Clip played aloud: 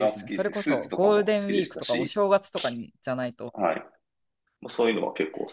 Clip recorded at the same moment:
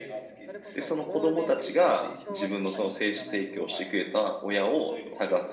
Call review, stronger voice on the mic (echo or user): user